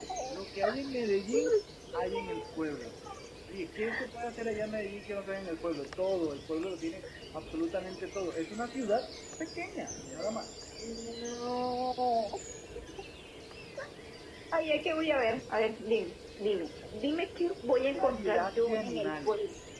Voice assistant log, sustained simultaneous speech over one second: present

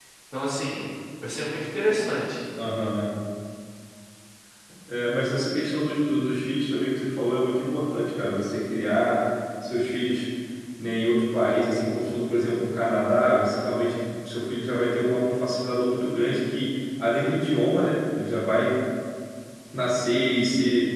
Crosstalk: none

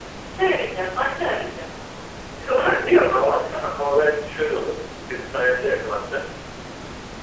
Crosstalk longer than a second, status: none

